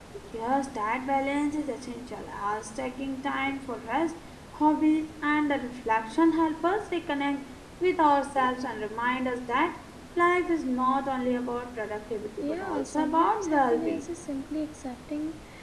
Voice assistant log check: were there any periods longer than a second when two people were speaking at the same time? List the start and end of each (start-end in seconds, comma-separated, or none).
12.4-14.1